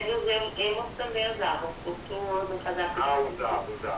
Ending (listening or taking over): taking over